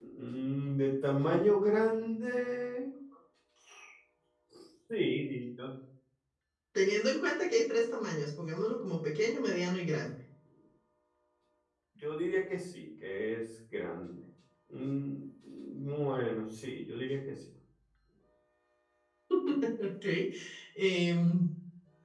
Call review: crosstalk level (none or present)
none